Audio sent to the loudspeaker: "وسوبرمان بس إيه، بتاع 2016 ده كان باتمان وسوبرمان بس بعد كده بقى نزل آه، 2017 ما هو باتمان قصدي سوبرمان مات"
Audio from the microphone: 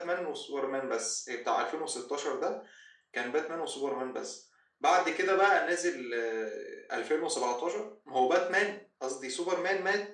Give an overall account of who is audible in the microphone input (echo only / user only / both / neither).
echo only